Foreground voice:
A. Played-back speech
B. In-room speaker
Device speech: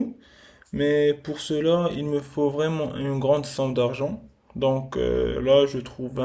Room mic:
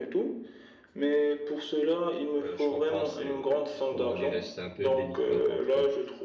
A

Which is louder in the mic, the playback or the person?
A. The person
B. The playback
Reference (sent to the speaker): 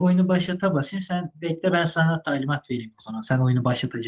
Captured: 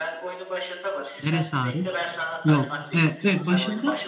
A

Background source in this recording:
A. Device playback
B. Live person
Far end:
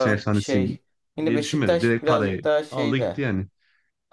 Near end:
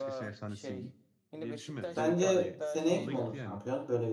A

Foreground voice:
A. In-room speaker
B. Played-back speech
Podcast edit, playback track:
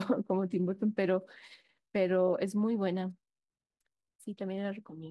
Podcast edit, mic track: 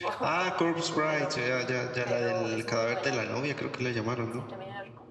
A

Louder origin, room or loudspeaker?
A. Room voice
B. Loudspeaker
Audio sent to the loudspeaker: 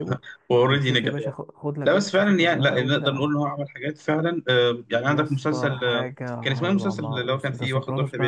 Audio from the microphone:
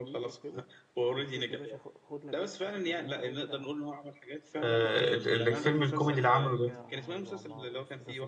A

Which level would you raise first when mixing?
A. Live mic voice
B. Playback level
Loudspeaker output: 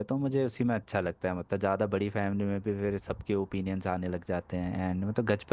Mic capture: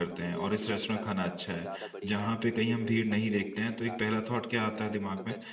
B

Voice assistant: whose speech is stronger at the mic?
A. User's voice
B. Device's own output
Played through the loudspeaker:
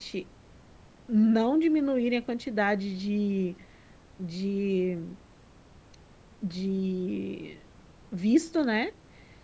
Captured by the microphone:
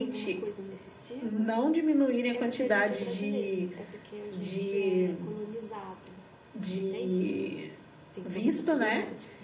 B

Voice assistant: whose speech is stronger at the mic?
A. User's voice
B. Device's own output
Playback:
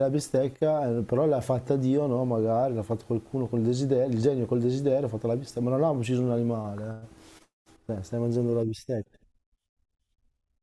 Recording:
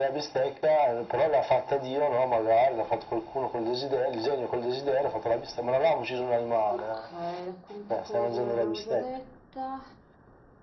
B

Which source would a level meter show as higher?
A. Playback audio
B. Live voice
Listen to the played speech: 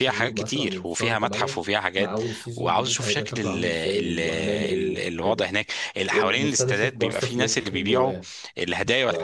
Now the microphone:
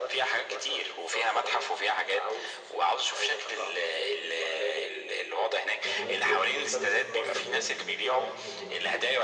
A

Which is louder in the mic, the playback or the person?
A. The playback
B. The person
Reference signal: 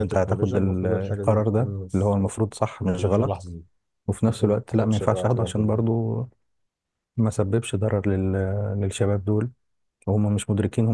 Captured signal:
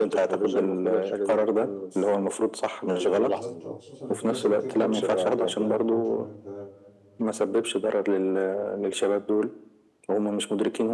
A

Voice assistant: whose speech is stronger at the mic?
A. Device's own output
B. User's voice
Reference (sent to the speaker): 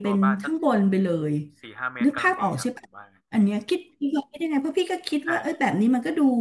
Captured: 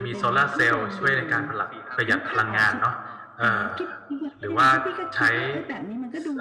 B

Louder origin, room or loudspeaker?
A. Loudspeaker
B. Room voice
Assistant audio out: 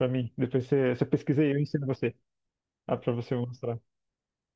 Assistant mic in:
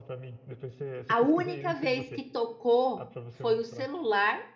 B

